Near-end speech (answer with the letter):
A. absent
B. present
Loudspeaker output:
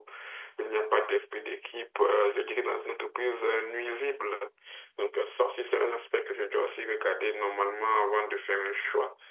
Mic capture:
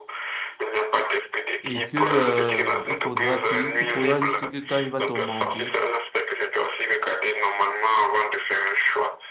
B